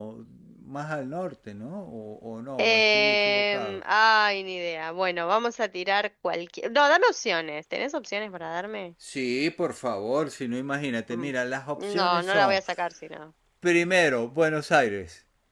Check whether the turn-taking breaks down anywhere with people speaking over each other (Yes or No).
Yes